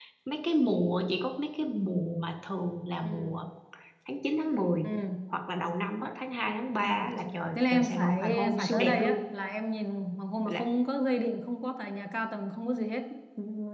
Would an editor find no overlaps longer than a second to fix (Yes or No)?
No